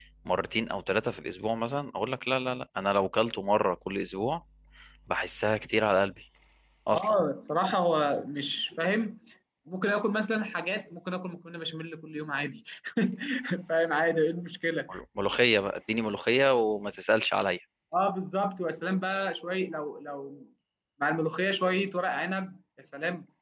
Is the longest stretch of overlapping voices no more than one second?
Yes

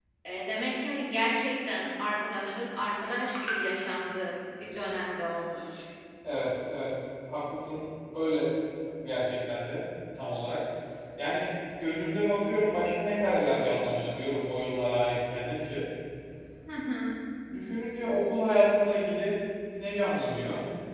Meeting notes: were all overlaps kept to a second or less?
Yes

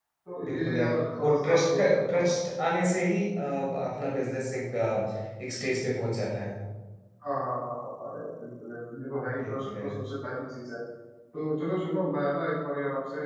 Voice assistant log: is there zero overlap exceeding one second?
No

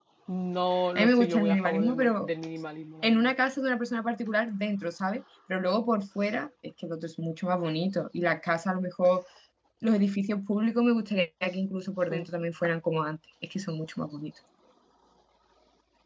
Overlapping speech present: Yes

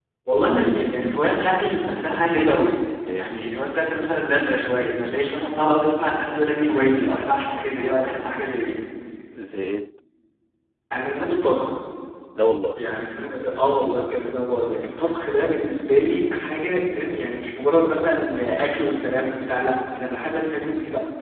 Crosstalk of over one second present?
No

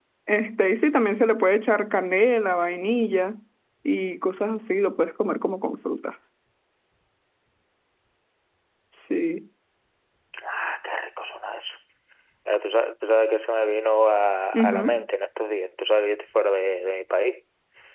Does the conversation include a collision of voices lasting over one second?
No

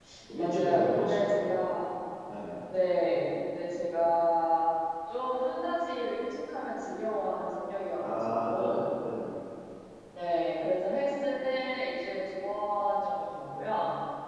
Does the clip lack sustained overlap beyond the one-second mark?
No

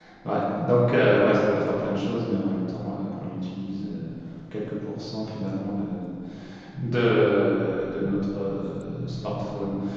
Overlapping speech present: No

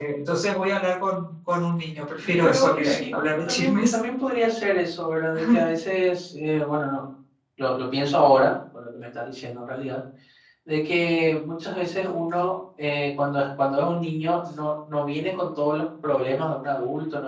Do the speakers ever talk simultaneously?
Yes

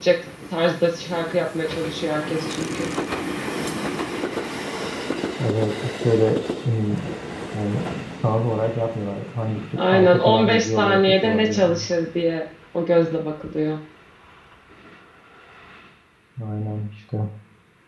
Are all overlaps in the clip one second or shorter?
No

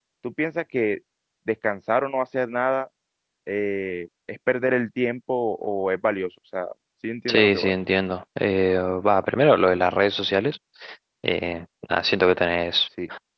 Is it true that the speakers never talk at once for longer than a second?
Yes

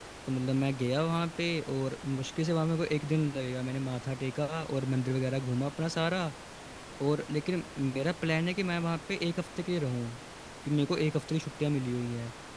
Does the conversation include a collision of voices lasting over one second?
No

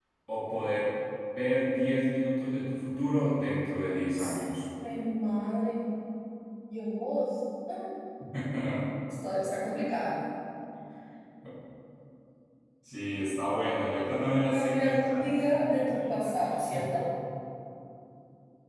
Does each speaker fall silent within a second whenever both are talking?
No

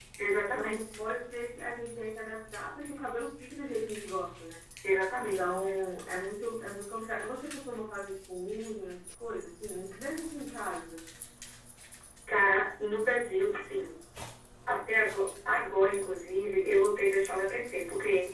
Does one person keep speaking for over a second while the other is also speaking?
No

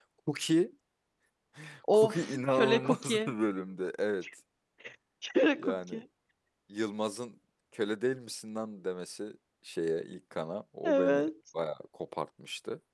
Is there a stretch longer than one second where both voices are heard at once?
Yes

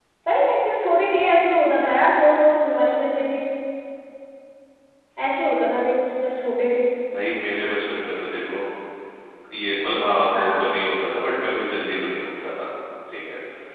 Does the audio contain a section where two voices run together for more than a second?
No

